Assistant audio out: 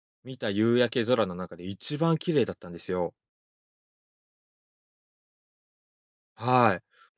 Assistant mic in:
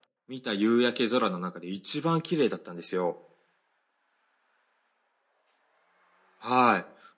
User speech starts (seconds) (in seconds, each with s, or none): none